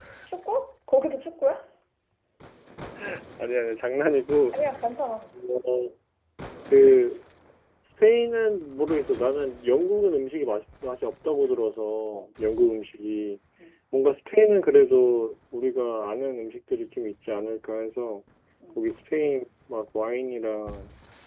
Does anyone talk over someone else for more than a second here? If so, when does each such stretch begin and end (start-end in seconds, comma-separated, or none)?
none